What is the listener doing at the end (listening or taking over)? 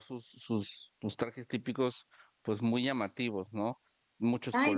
taking over